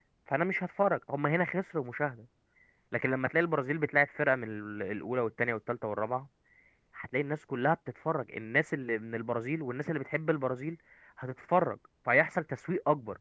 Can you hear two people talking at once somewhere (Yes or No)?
No